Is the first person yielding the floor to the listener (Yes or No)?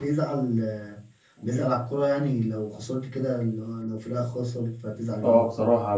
Yes